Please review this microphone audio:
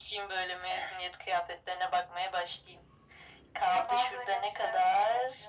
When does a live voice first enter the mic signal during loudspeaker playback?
none

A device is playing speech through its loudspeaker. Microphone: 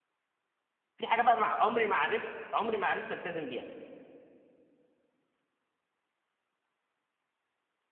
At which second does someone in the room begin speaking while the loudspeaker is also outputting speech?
1.0 s

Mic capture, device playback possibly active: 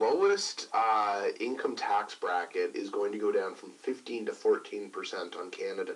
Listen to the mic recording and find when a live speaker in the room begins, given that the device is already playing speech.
none

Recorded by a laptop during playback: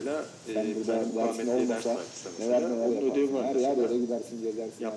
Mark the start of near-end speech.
none

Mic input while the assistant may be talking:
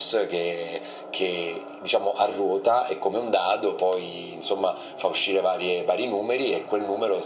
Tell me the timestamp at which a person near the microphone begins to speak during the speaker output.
none

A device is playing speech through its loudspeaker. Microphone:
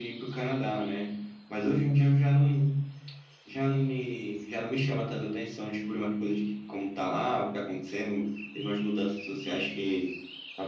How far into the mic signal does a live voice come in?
none

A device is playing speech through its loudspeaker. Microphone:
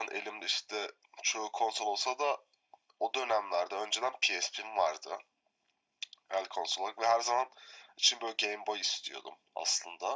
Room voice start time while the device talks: none

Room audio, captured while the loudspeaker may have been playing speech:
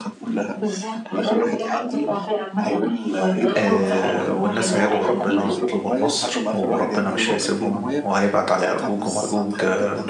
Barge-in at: 3.6 s

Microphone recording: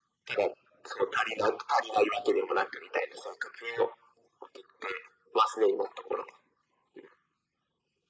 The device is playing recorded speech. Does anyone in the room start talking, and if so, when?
none

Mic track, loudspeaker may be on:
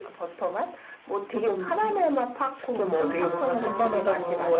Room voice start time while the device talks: 2.9 s

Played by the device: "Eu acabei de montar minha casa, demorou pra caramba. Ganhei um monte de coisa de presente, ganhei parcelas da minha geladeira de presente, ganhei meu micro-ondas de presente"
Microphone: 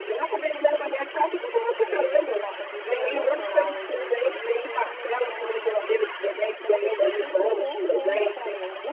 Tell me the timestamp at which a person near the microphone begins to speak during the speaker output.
1.8 s

